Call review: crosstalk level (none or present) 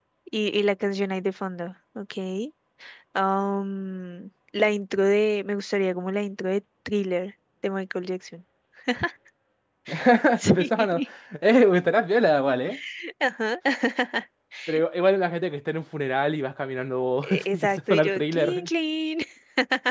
present